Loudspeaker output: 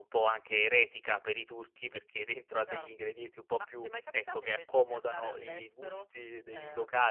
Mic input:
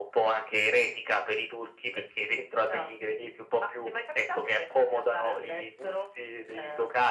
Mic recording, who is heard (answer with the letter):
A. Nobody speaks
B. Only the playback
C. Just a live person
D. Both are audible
B